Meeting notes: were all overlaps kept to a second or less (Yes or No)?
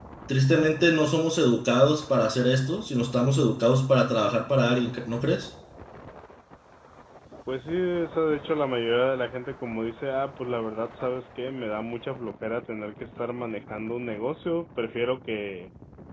Yes